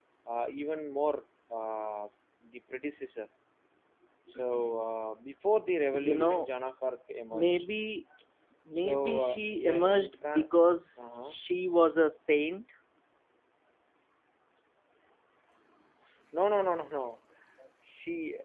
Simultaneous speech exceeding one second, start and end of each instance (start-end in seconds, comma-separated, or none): 8.7-10.5